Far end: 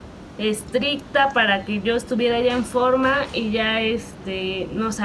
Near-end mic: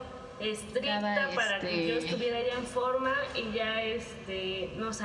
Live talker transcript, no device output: cada, este,

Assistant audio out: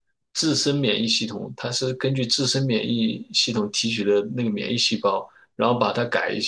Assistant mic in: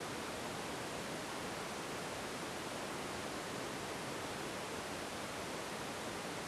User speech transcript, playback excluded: none

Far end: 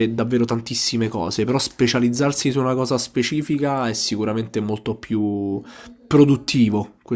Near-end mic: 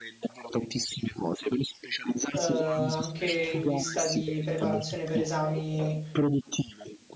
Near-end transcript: eh, anche in vista di preparazione per esami,

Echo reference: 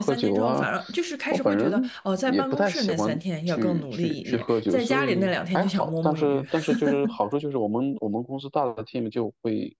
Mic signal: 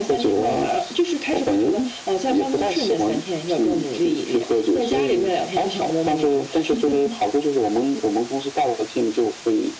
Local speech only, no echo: none

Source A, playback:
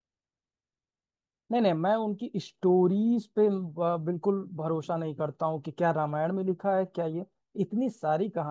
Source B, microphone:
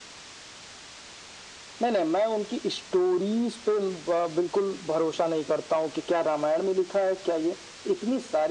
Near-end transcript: none

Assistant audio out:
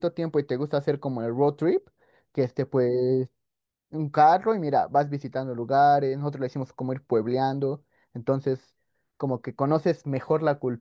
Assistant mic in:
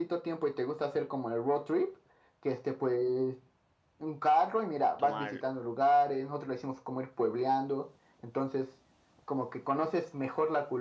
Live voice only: ¿Tomar

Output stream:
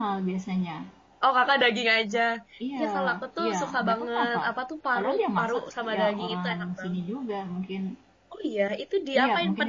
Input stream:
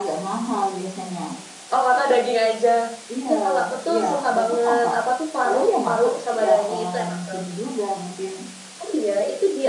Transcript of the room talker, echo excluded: none

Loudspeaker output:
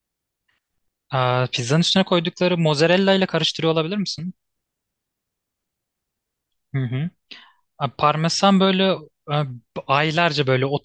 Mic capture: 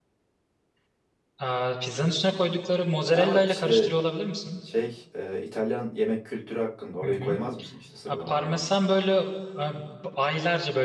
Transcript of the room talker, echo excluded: Ama işte şey e, İtalyan yemek kültürü hakkında orayı koymaz mısın işte sıralamada bence.

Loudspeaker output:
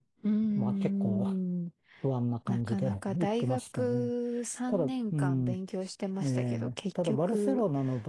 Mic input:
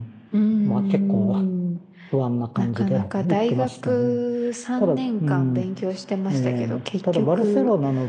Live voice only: none

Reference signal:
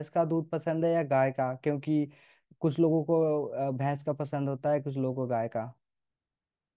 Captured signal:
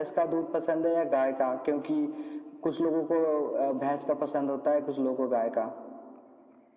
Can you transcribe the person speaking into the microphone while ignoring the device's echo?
none

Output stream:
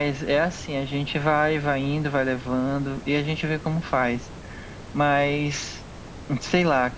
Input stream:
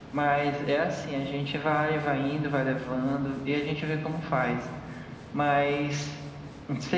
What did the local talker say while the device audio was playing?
none

